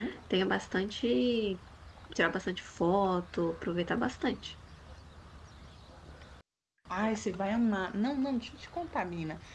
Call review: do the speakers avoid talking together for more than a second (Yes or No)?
Yes